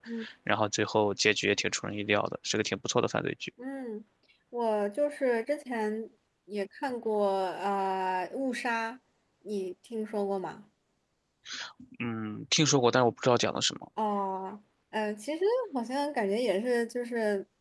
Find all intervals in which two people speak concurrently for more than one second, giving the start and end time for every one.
none

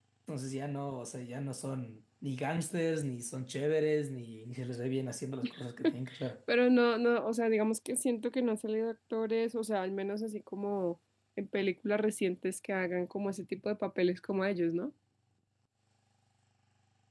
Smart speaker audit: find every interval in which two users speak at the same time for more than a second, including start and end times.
none

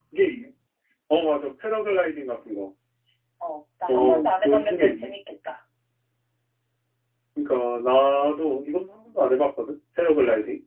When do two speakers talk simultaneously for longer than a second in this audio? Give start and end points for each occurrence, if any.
3.9-5.1

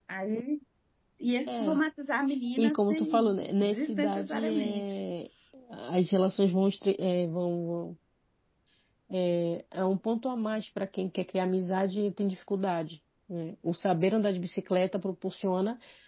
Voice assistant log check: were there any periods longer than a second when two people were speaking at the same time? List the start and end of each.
2.6-5.0

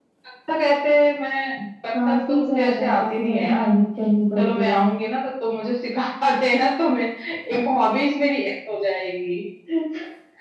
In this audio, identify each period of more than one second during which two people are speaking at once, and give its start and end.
1.9-3.7

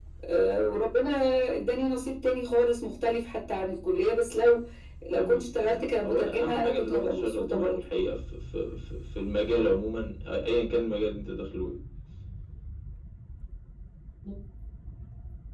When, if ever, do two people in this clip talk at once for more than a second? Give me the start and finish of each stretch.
5.1-7.8

